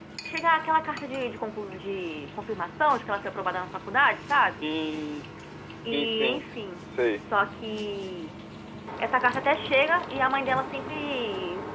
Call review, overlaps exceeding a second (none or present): none